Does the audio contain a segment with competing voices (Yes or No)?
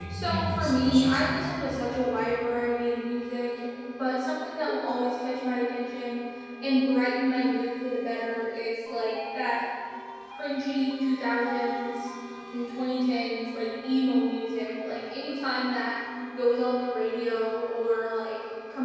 Yes